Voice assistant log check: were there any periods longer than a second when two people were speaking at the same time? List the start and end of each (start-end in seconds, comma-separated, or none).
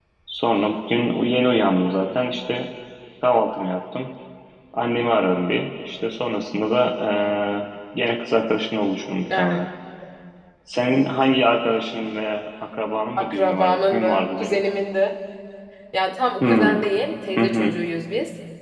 13.2-14.6